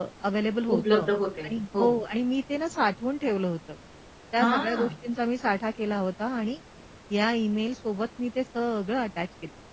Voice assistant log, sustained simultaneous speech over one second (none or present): none